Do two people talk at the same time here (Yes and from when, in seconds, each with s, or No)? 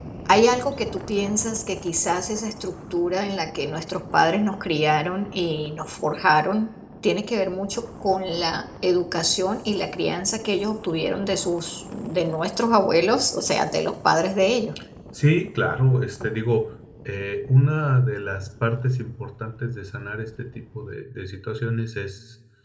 No